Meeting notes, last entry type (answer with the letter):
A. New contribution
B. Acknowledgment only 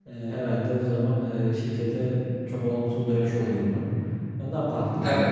A